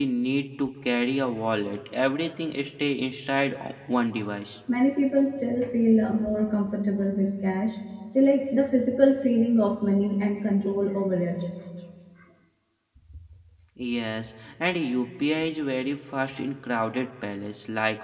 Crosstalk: none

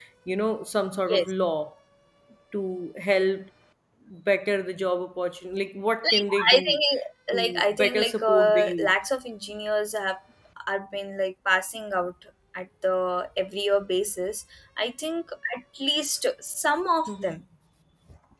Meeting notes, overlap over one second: present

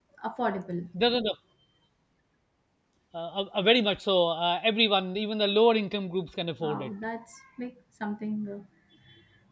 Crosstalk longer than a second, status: none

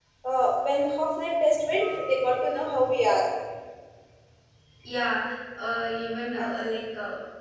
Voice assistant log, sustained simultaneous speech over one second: none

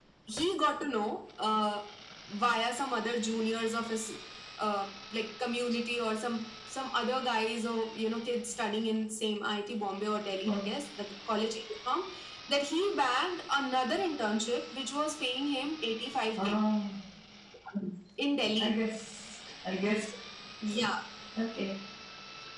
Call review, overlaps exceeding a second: none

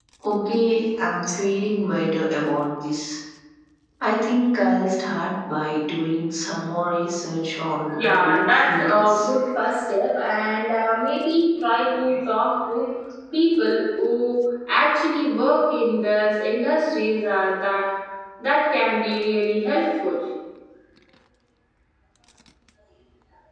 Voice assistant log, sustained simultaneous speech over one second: present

